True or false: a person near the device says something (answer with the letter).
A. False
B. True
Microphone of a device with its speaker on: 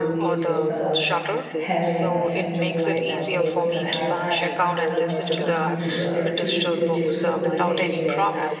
B